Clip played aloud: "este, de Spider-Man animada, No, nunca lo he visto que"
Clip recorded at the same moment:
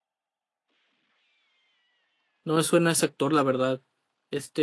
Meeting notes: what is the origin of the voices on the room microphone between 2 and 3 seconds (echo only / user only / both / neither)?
user only